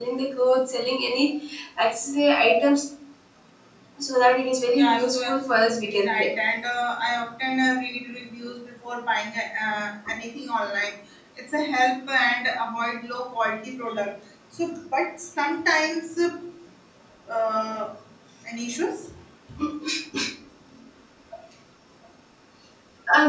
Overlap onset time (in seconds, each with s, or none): 4.8 s